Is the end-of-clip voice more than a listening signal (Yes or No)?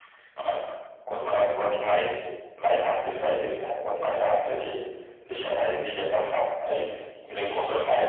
Yes